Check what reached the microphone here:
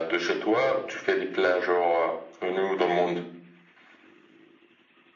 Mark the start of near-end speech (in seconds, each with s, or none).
none